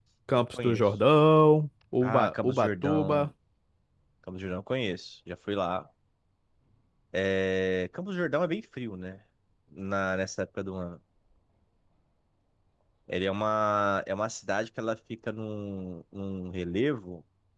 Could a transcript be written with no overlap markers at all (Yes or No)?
No